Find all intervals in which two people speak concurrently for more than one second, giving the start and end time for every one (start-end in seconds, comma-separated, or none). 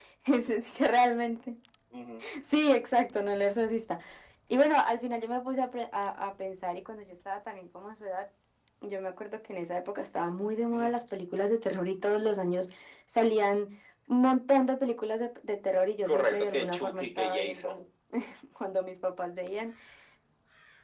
16.0-17.8